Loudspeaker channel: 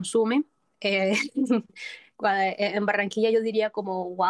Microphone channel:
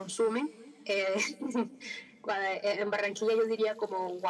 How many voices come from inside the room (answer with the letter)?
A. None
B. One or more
A